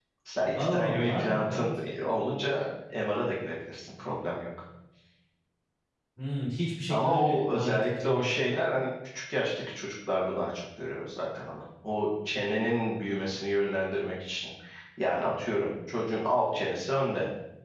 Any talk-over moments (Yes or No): Yes